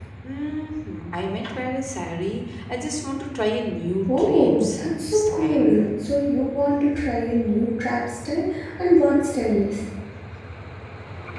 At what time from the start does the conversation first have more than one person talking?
4.1 s

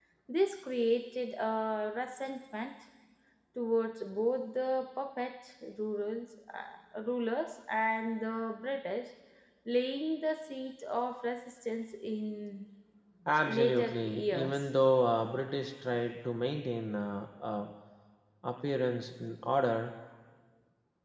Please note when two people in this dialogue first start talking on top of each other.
13.4 s

